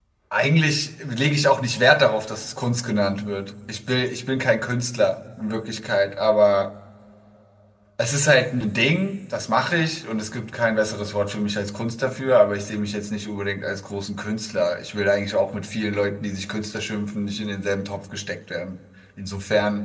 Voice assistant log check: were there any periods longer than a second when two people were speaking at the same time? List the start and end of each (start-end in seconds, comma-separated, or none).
none